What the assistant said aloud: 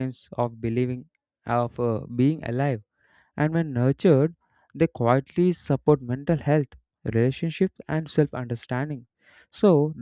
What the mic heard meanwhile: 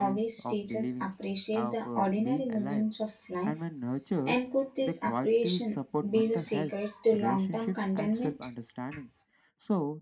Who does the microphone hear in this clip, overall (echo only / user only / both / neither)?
both